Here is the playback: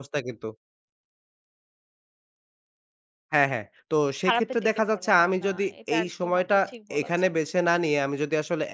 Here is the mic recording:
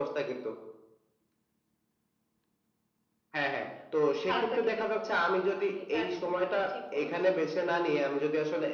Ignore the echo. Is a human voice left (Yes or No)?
Yes